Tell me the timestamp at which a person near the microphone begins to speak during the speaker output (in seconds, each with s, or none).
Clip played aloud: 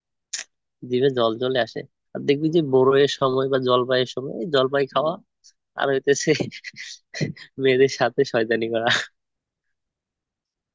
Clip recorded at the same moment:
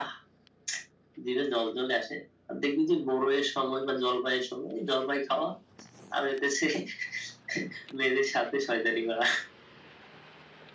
none